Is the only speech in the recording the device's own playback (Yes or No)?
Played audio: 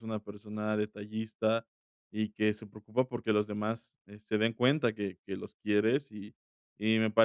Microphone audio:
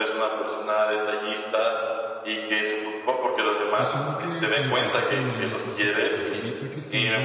No